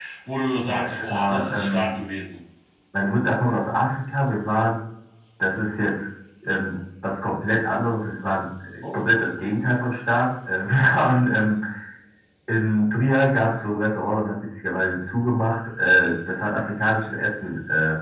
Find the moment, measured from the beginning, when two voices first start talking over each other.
0.6 s

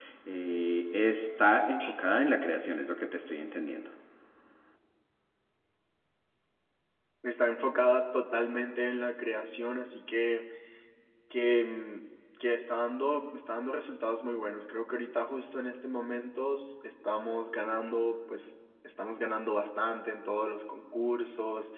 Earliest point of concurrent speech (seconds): none

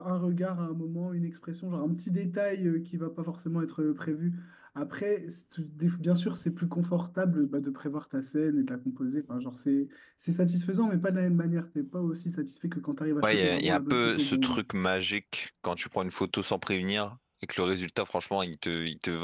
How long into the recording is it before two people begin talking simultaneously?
13.2 s

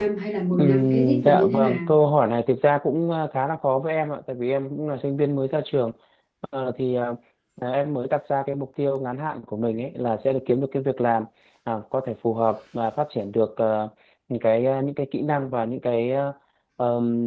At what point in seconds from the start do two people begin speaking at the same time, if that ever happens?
0.5 s

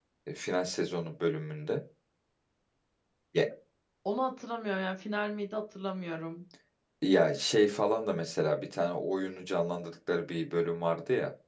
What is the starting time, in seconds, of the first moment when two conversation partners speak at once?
none

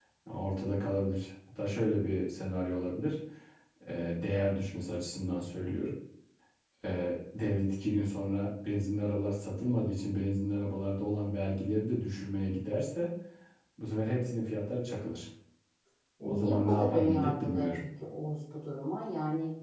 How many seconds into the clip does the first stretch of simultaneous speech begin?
16.2 s

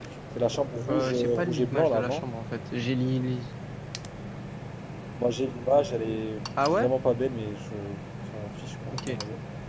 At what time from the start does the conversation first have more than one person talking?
0.9 s

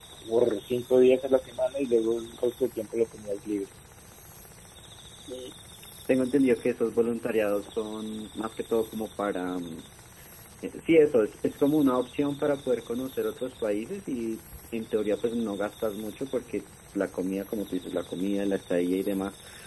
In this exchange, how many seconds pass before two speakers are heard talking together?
none

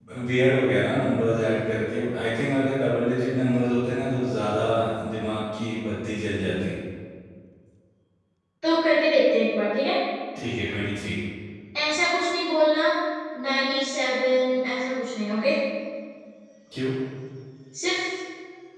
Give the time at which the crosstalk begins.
none

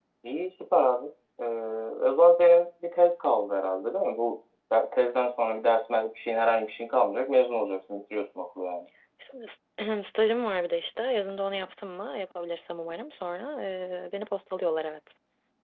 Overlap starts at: none

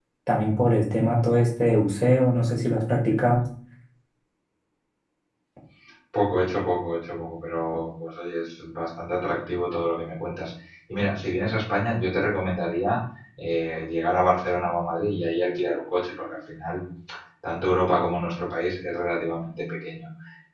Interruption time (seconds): none

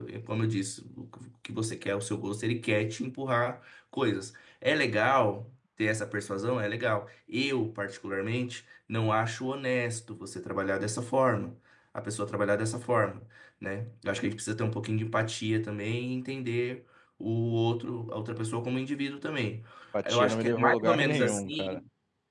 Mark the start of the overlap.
20.1 s

